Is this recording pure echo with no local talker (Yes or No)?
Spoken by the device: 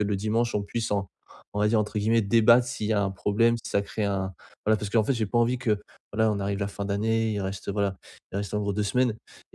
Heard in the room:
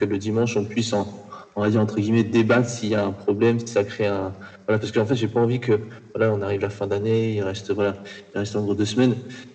Yes